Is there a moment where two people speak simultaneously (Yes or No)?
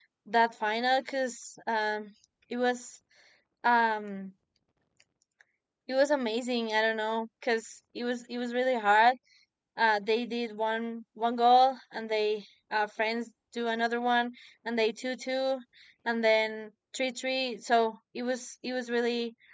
No